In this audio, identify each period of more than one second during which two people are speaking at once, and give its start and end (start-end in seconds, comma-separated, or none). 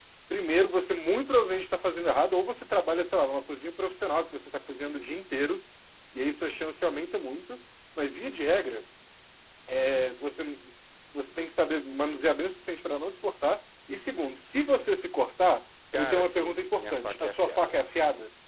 16.0-17.7